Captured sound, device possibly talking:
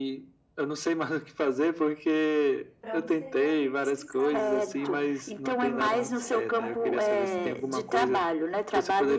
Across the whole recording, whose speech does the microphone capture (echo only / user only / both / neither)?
both